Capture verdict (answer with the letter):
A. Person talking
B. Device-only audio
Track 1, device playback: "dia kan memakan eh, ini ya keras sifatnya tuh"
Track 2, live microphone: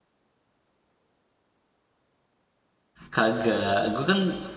A